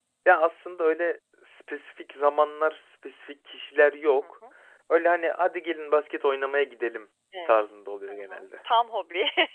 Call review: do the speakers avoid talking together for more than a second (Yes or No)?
Yes